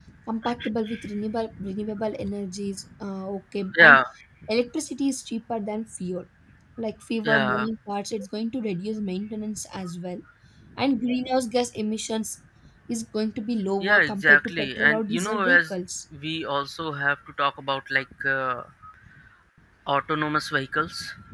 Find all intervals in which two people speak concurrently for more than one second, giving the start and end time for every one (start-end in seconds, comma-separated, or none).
13.8-15.6